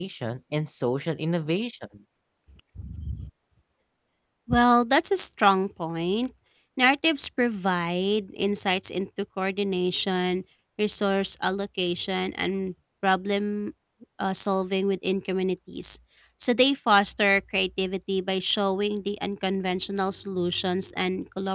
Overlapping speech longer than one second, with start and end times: none

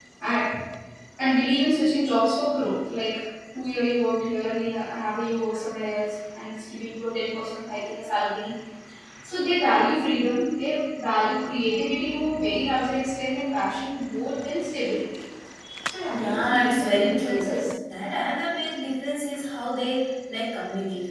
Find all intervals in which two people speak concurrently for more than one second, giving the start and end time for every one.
16.1-17.5

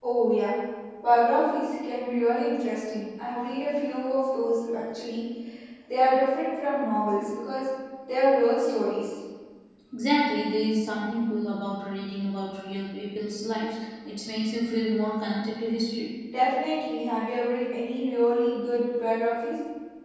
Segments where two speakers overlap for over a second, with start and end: none

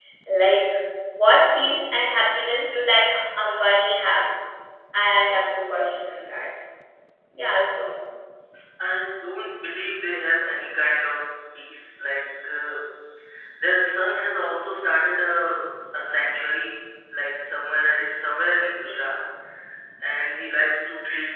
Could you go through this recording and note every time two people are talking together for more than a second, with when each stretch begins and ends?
none

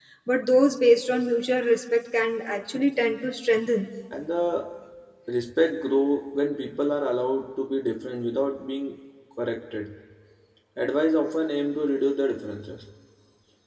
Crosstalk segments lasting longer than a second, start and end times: none

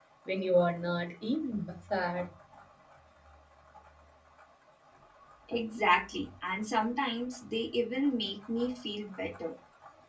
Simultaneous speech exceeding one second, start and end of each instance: none

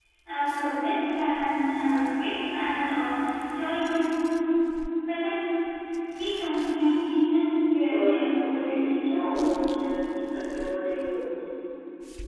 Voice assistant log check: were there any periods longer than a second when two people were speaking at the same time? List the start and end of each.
7.9-9.7

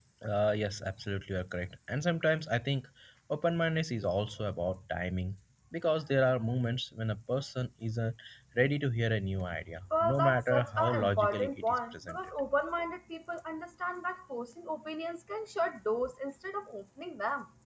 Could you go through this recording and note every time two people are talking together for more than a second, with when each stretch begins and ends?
9.9-12.2

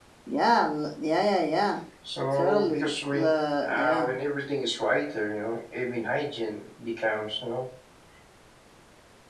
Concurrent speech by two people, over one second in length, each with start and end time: 2.4-4.1

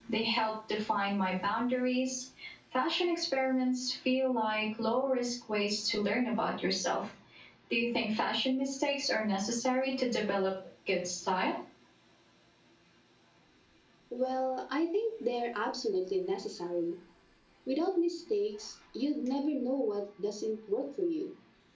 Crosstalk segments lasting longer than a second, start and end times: none

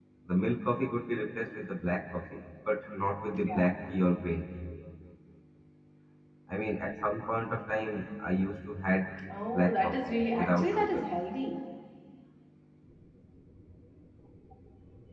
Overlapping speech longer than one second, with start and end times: 9.5-11.1

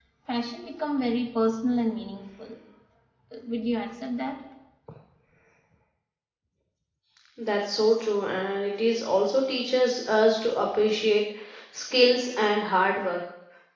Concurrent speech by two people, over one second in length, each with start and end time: none

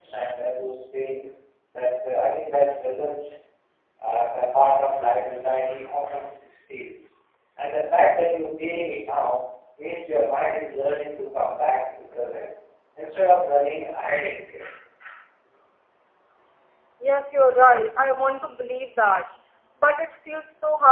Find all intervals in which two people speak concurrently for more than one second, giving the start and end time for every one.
none

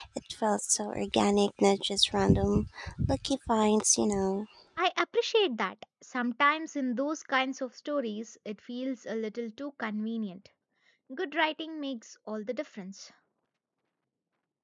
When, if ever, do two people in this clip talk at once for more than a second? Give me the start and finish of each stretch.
none

